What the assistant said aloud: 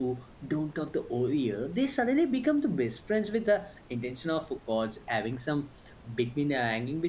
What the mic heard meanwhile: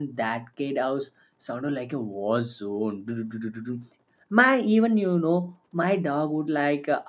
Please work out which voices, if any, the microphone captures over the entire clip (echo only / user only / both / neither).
user only